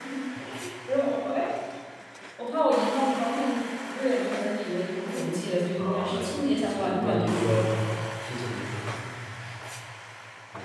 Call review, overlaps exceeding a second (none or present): present